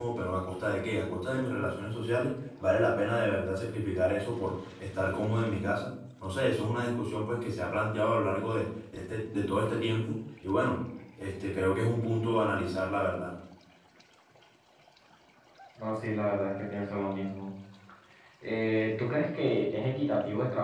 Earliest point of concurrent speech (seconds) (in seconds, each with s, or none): none